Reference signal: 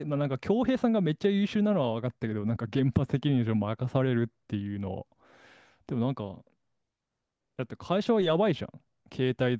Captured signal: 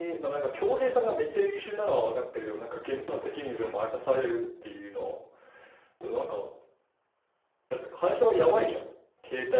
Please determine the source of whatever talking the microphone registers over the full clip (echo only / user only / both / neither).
echo only